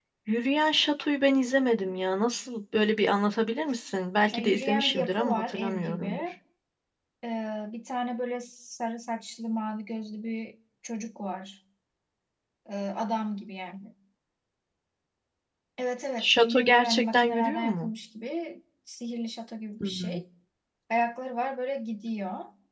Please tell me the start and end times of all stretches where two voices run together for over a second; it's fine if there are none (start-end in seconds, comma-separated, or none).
4.3-6.2, 16.2-17.9